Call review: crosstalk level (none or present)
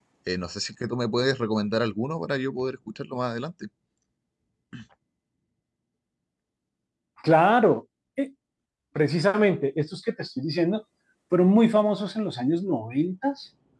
none